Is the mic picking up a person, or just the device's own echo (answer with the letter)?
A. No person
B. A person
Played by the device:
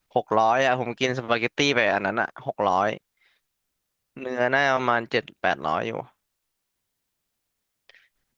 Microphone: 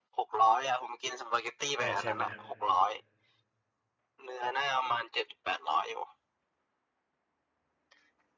B